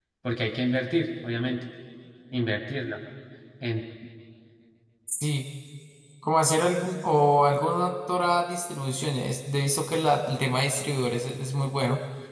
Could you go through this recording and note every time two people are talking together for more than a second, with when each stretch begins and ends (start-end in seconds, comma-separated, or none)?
none